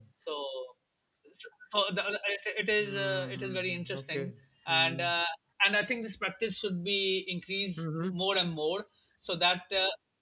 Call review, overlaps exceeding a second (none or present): present